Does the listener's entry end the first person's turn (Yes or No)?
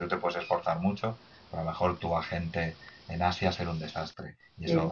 No